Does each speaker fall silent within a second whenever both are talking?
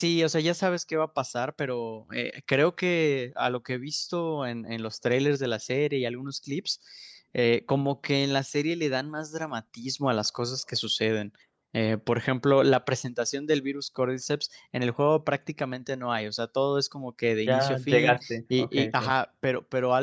No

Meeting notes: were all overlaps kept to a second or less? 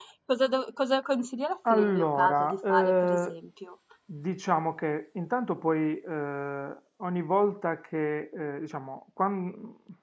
No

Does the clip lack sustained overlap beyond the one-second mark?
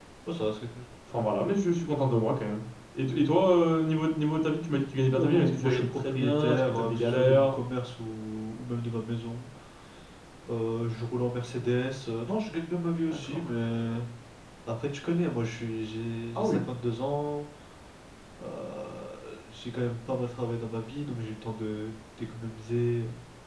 No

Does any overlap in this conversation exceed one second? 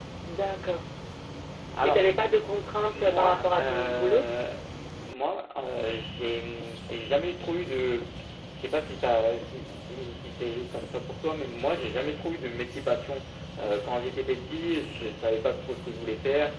Yes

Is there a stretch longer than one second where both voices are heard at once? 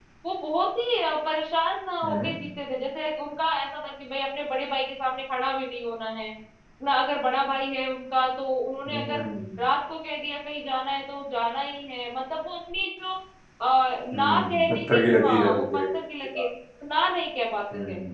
Yes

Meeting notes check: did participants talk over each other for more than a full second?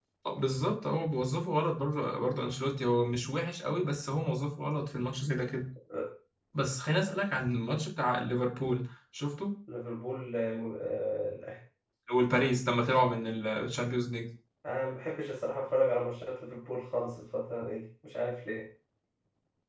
No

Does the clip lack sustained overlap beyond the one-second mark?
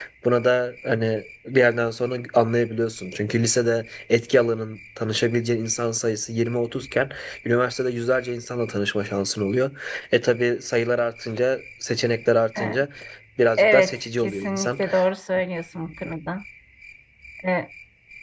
No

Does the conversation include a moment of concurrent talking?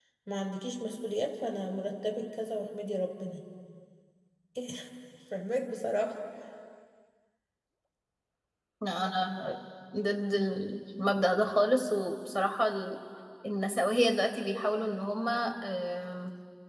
No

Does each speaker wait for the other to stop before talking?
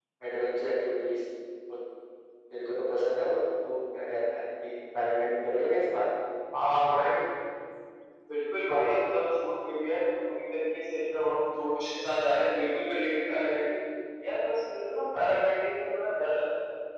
Yes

